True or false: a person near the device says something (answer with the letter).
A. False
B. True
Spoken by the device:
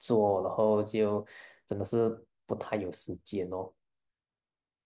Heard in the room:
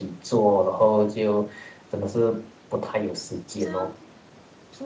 B